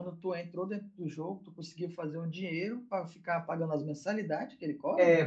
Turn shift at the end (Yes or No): Yes